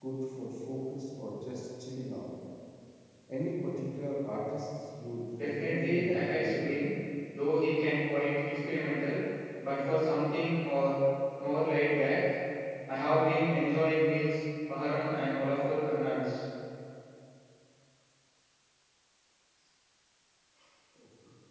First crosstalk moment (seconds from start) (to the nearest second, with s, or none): 5 s